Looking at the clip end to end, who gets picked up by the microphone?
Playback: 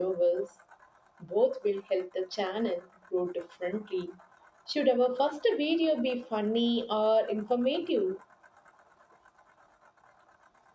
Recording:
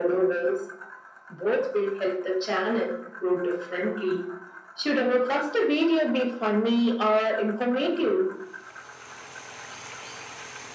echo only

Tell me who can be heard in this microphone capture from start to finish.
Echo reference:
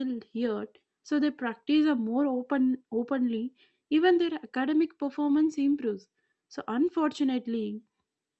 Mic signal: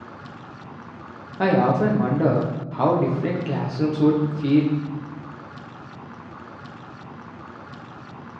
user only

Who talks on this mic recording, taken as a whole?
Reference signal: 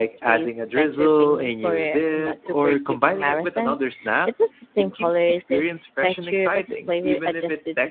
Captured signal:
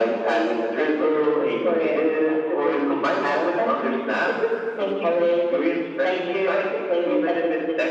echo only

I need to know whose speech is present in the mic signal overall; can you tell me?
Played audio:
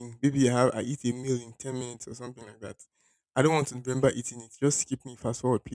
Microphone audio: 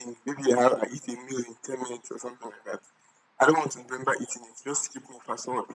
echo only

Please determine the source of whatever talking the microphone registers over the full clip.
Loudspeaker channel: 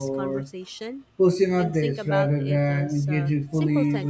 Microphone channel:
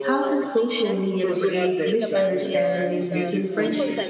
both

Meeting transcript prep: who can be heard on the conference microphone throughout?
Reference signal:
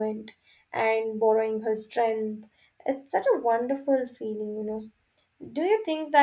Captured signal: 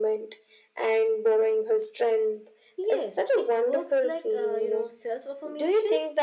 both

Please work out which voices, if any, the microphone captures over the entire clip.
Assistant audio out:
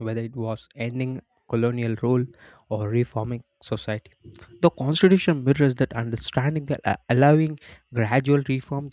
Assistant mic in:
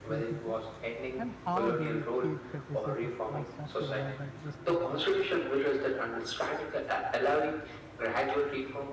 both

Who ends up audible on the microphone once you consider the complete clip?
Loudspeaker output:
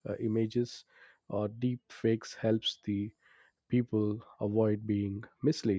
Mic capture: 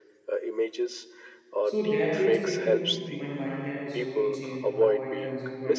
both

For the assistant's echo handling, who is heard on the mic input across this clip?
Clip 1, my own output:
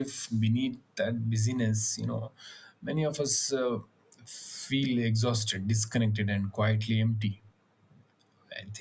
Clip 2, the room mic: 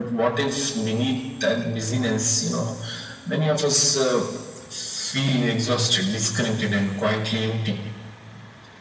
echo only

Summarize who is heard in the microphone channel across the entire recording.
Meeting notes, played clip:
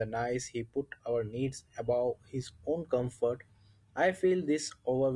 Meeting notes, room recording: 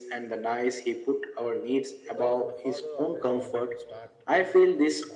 both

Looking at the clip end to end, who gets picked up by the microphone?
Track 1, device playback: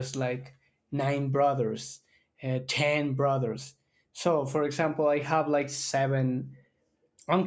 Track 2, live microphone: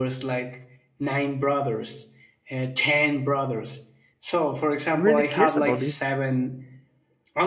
both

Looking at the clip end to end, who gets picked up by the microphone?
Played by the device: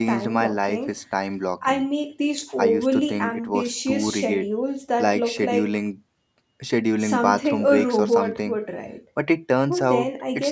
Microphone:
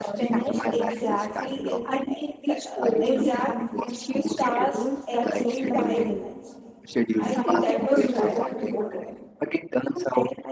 both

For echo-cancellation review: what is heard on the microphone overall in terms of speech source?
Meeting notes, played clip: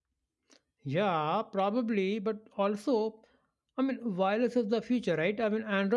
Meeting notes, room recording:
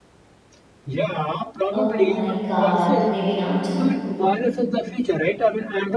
both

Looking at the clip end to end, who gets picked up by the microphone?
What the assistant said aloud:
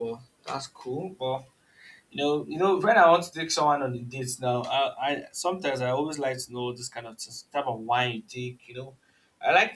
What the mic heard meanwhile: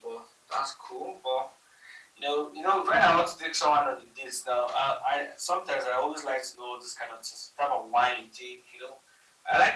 echo only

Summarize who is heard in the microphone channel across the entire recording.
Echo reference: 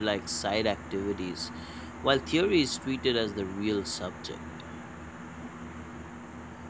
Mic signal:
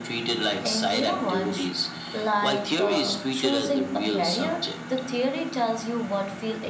both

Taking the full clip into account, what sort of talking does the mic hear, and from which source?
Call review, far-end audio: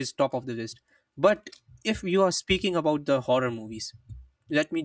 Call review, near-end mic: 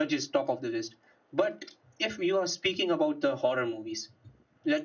echo only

